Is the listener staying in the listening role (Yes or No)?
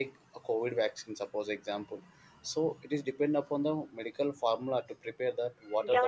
No